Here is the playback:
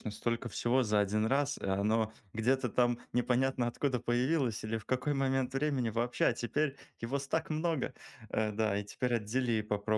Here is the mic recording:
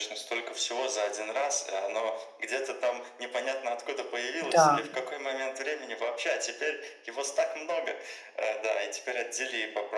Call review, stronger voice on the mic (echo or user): user